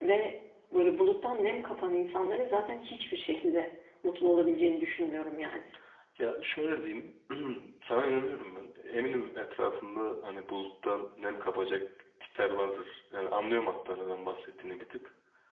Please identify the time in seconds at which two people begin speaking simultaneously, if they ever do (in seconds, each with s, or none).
none